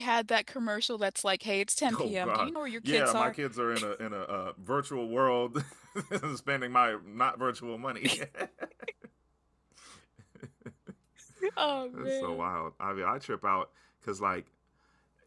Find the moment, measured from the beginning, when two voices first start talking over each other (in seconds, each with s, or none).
2.0 s